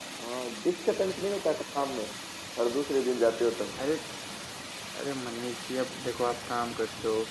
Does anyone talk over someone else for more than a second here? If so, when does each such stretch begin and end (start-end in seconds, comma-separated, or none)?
none